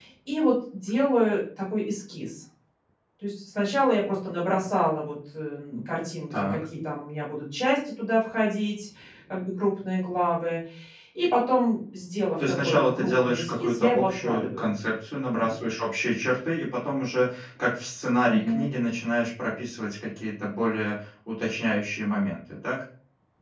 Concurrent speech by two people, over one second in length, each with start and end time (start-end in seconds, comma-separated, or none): 12.4-14.7